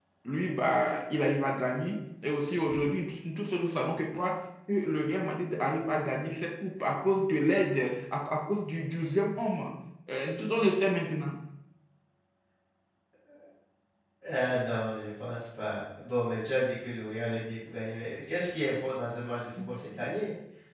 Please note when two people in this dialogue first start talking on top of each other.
none

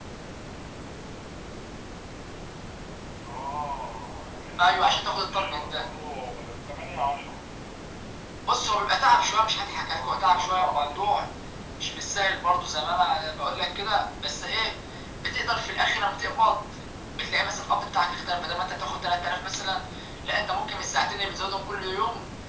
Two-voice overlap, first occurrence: 4.6 s

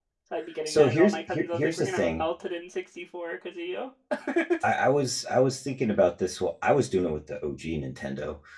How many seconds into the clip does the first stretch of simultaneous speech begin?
0.7 s

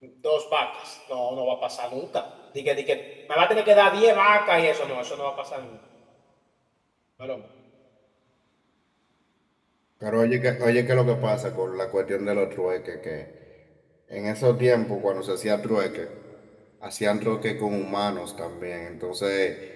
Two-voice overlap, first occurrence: none

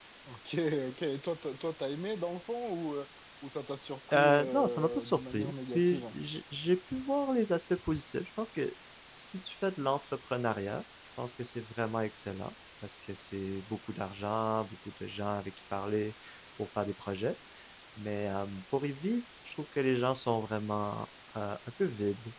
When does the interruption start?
4.1 s

